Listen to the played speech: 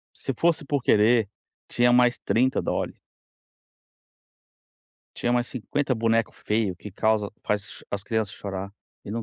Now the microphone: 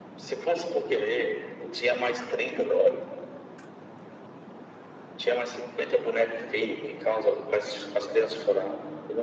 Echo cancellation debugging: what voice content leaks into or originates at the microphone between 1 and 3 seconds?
echo only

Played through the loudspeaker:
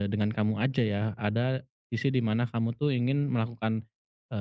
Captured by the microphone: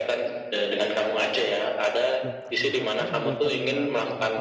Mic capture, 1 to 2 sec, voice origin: echo only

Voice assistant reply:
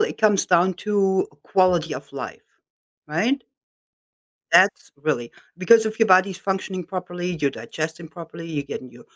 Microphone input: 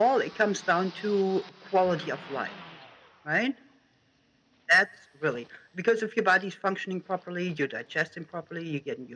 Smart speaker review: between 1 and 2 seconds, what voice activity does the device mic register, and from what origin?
echo only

